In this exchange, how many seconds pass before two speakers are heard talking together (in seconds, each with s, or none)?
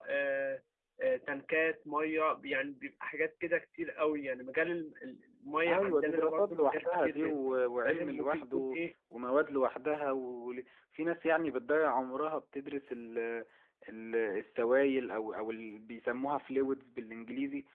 5.7 s